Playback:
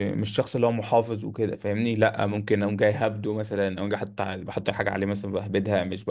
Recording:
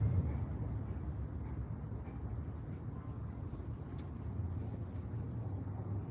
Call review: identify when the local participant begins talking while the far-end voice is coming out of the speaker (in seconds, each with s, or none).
none